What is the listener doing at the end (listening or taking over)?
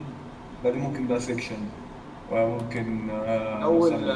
taking over